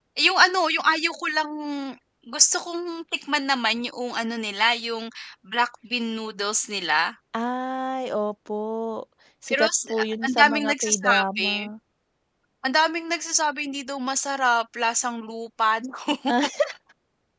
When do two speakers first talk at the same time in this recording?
9 s

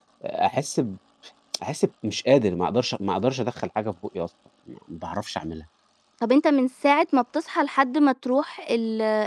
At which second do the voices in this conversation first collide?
none

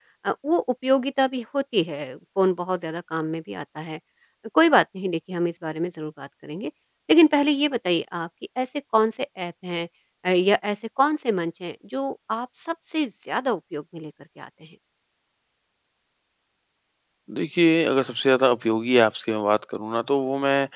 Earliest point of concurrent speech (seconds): none

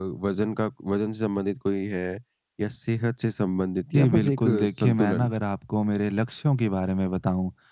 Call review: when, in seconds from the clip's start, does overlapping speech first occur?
4 s

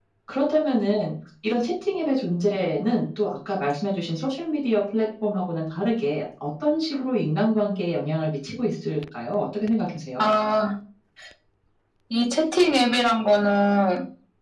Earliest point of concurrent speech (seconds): none

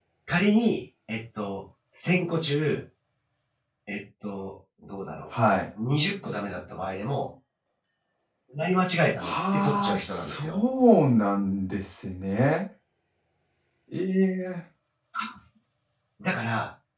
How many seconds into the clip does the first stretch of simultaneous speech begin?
9 s

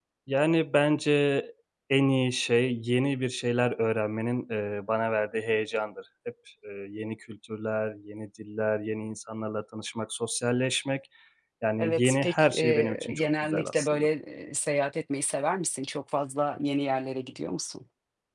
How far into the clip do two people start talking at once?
12 s

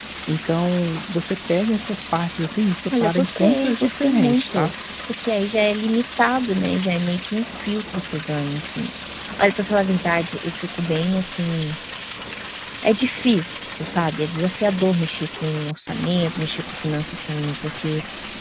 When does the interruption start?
3 s

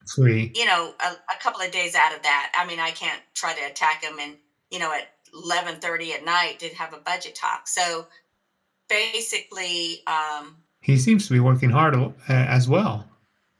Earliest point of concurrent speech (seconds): none

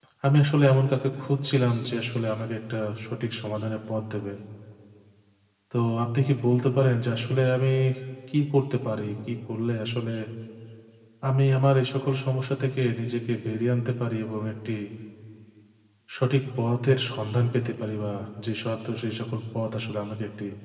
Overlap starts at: none

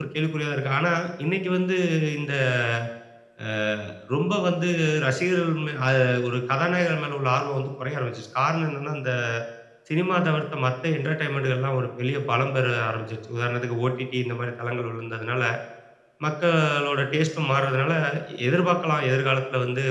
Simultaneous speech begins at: none

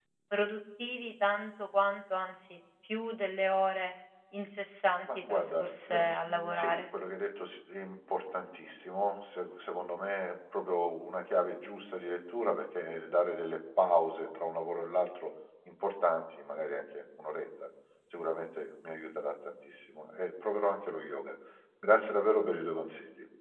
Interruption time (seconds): 5 s

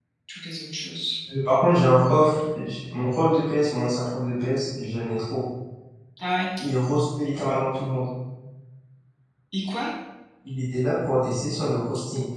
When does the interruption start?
none

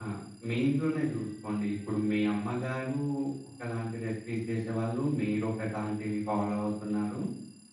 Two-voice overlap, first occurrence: none

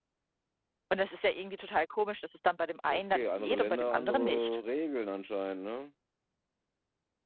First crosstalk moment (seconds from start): 3 s

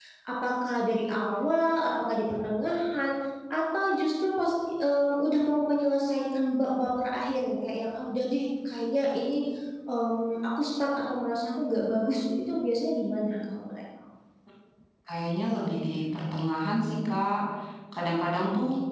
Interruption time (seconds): none

